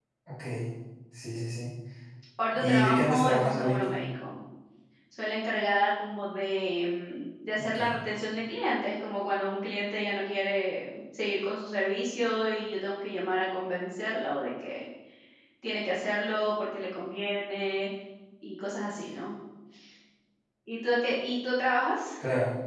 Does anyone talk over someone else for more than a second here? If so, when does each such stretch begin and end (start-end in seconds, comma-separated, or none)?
2.5-4.0